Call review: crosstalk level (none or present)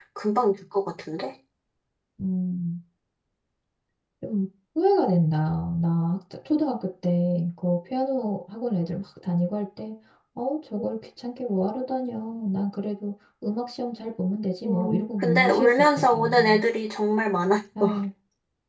present